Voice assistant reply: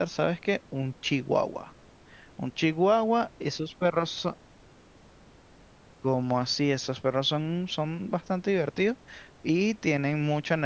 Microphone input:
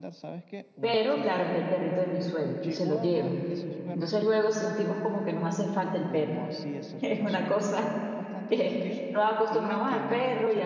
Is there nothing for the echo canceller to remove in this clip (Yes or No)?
No